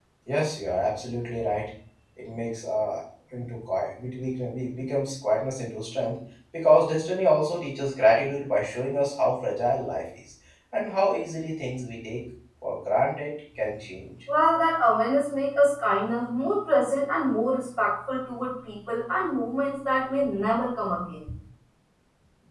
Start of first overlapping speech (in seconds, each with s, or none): none